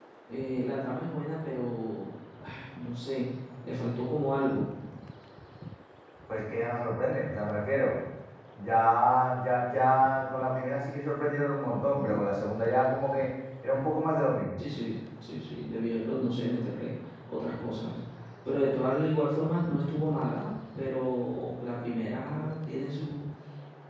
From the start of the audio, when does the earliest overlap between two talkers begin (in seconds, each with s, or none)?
none